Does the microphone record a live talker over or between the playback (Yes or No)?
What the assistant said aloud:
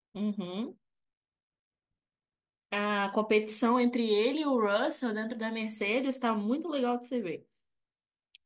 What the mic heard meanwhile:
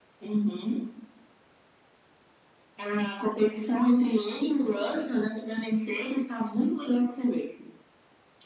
No